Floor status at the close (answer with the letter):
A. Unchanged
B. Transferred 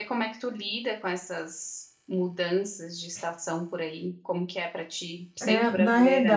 B